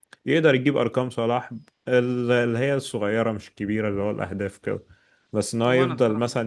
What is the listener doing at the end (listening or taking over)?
listening